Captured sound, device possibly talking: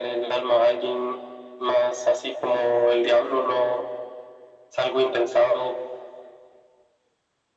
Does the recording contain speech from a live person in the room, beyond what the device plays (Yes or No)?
No